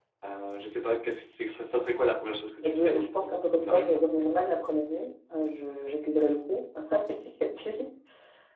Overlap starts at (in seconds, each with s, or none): 2.6 s